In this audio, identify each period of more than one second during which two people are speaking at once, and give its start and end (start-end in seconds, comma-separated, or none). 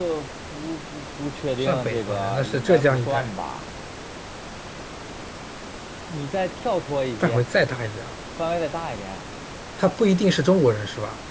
1.5-3.3